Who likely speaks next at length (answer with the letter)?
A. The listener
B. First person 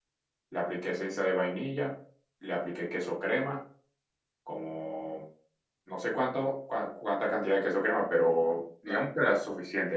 B